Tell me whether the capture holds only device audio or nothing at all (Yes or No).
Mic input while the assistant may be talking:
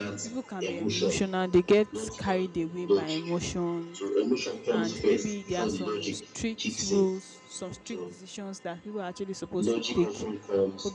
No